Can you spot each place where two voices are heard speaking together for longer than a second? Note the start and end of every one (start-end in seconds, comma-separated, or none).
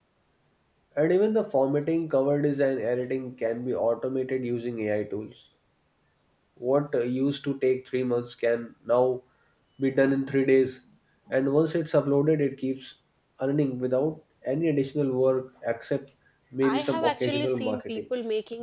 16.6-18.0